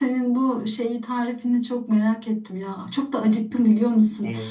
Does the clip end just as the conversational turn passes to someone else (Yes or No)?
No